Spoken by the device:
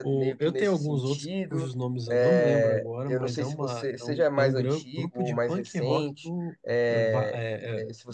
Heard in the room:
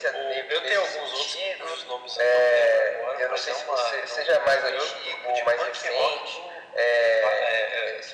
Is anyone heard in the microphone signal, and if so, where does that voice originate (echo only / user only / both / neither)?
echo only